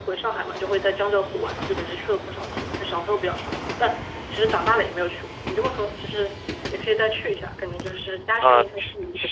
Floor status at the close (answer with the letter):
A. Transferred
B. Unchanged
A